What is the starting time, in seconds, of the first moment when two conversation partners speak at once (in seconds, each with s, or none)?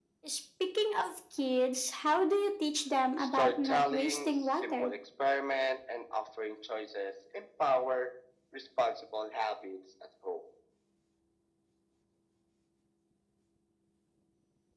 3.2 s